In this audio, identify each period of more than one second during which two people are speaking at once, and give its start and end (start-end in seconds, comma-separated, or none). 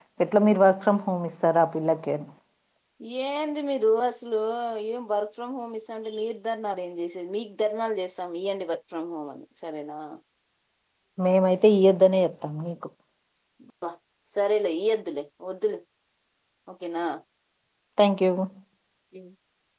none